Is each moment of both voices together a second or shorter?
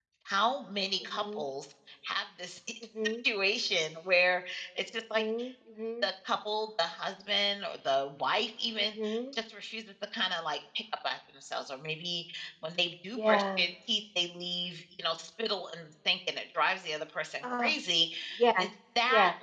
Yes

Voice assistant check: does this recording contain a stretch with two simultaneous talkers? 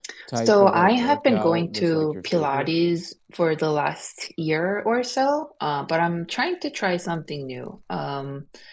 Yes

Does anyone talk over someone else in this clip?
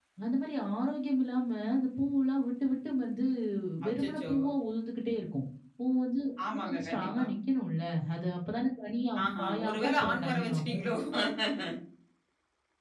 Yes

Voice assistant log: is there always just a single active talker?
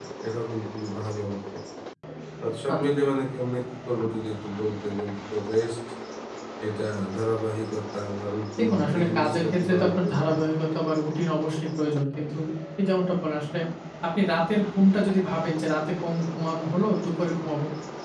No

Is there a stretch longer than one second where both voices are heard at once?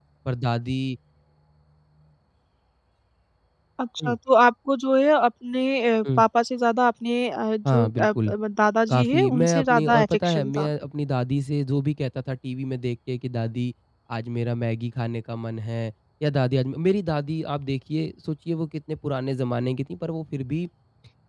Yes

